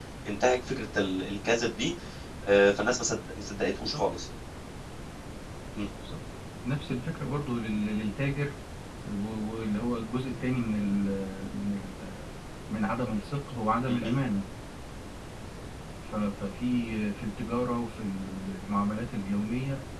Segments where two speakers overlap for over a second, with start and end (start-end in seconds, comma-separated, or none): none